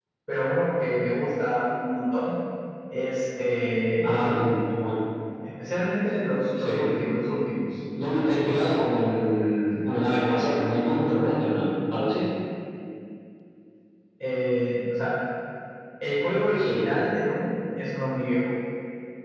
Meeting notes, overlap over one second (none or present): none